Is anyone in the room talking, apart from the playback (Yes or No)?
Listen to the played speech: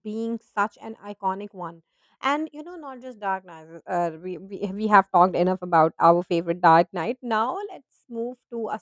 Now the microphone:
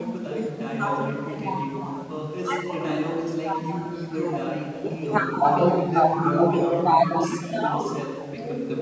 Yes